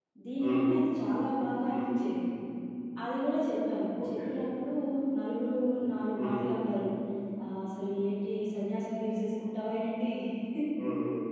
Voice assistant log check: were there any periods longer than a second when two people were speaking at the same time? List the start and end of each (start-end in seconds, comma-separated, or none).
none